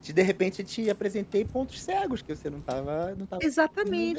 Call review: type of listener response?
taking over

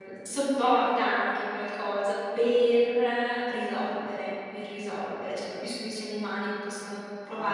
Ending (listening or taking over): taking over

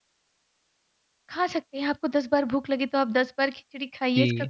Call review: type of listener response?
taking over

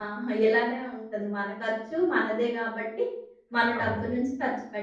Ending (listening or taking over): listening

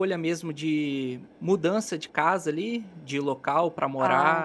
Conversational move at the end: taking over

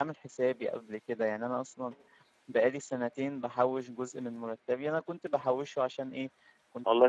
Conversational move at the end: listening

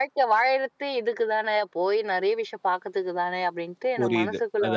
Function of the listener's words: taking over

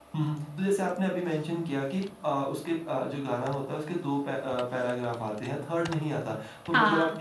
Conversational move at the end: listening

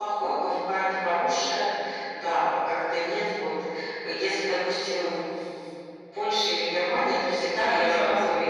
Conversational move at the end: listening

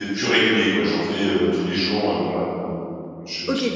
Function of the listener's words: taking over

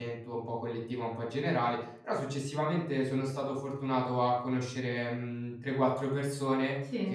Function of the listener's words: listening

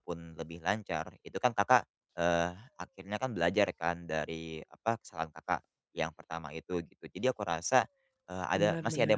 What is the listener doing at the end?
listening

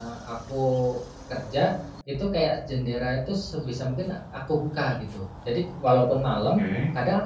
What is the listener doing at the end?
listening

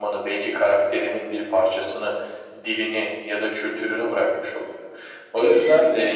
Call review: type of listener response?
listening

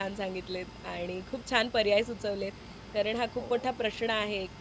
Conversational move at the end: listening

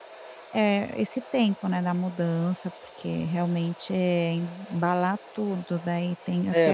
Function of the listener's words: taking over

